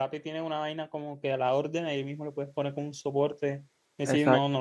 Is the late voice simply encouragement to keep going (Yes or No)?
Yes